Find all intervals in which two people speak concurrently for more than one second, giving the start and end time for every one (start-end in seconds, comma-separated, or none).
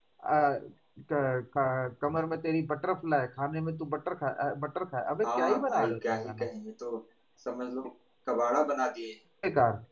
5.2-6.5